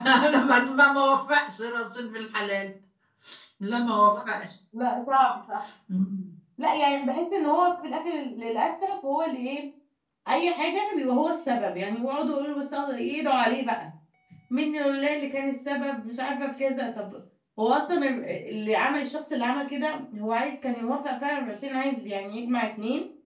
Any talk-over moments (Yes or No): No